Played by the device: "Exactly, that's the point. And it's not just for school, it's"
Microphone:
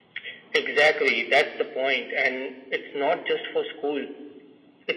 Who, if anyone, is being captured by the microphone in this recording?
echo only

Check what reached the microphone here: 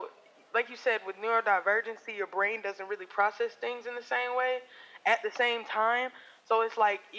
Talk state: echo only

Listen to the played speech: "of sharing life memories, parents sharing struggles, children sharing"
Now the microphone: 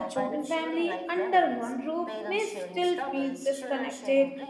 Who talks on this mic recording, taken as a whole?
both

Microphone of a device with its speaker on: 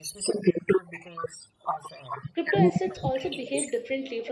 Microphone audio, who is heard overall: both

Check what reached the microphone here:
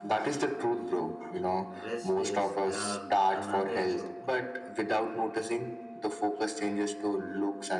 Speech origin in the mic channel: both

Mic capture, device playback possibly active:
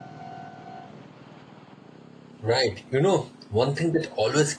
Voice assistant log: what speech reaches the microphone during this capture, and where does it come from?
user only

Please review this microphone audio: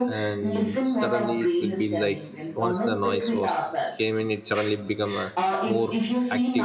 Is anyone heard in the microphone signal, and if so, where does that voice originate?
both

